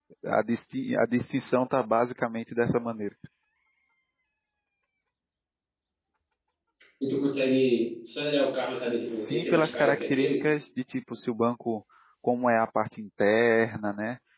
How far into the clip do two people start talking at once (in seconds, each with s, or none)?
9.1 s